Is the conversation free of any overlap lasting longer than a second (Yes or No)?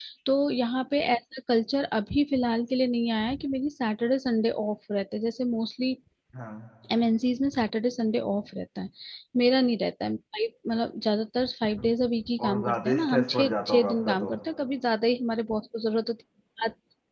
No